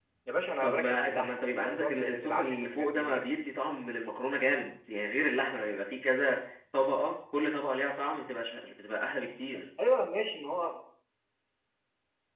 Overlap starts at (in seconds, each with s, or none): 0.6 s